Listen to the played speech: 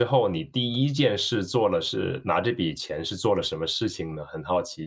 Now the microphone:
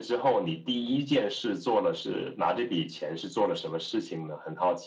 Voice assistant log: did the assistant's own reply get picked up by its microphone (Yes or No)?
Yes